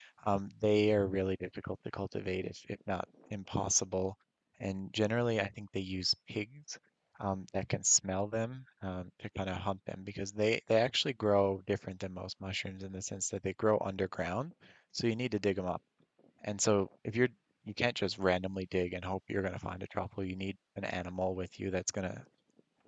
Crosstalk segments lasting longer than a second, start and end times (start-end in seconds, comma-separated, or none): none